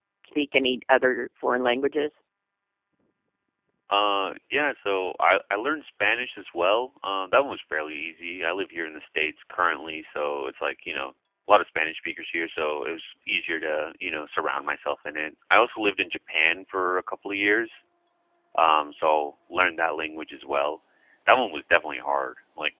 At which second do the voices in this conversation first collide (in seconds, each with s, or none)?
none